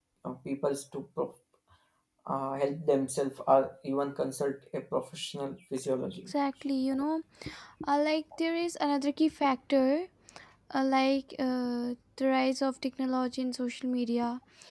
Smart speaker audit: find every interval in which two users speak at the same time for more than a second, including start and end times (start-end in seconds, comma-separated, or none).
none